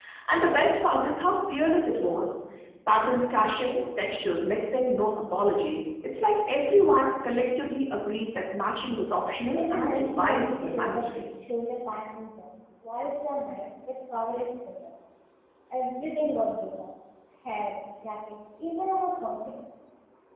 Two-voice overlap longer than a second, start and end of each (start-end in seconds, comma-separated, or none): 9.5-11.2